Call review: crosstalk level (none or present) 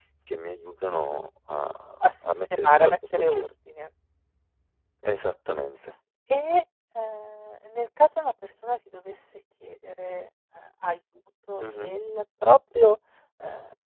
present